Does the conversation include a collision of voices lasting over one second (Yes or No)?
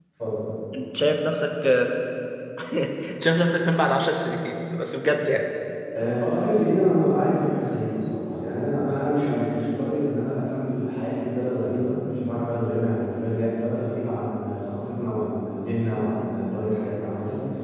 No